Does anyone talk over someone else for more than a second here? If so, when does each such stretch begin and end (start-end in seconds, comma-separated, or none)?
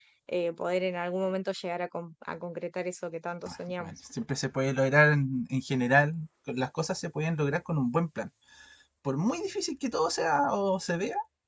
none